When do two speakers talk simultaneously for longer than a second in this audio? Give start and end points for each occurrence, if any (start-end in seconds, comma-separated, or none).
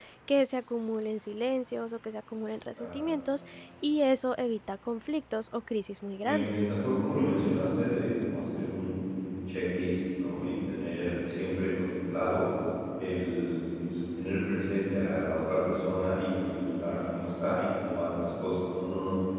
none